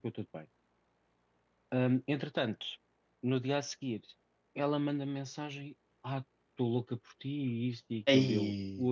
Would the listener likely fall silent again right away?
Yes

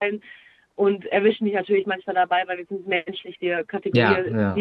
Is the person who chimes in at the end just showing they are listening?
Yes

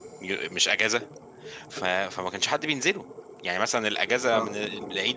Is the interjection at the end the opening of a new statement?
No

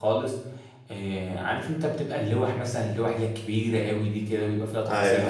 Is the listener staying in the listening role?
Yes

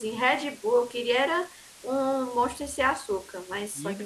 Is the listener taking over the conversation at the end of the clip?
Yes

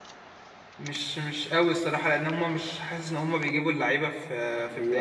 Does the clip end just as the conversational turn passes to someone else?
Yes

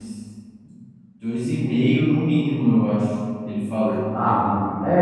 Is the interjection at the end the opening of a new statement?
Yes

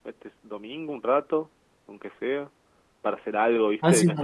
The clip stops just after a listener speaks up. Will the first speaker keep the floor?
No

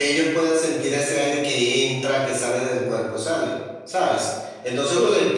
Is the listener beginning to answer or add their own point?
No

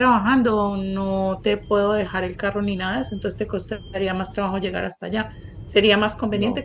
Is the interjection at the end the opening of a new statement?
No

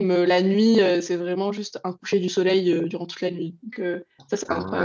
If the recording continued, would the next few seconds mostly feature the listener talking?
Yes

